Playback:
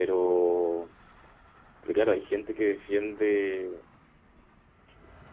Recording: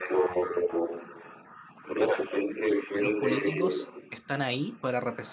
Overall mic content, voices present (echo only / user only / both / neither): both